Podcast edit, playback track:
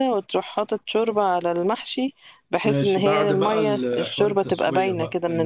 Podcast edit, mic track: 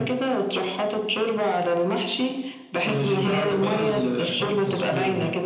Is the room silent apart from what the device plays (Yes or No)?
Yes